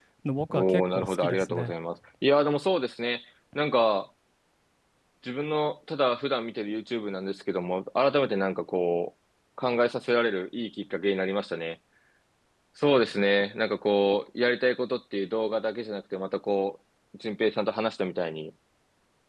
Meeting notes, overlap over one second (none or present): present